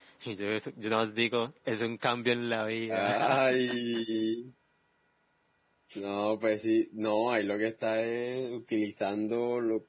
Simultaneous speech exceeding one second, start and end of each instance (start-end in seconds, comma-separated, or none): none